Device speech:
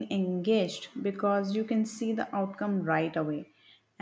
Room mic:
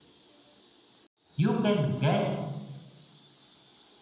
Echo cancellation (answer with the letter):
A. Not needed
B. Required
A